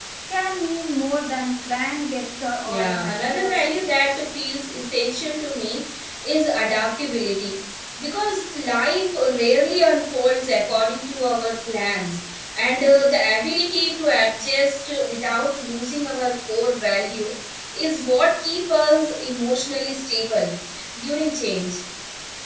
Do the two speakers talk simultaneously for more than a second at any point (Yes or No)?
Yes